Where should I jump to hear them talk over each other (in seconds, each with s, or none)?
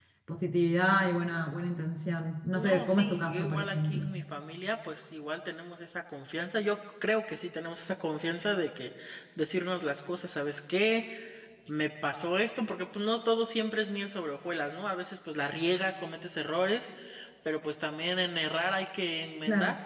2.5 s